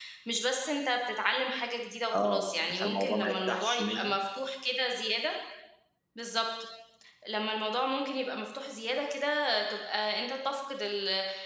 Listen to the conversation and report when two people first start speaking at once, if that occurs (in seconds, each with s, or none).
2.1 s